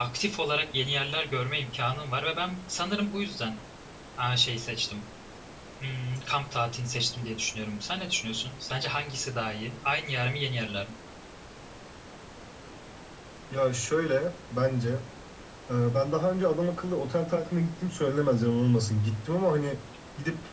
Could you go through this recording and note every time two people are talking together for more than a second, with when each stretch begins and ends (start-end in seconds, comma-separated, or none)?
none